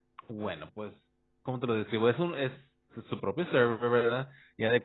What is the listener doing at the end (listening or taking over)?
listening